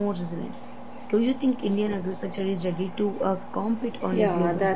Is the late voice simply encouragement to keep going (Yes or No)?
No